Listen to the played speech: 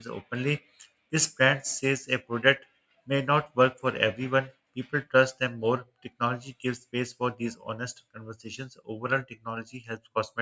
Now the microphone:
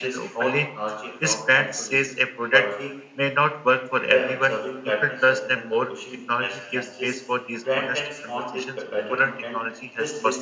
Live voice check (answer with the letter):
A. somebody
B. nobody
A